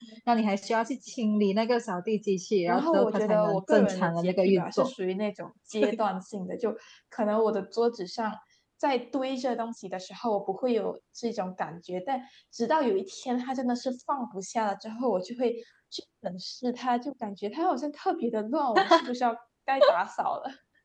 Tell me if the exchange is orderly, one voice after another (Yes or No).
No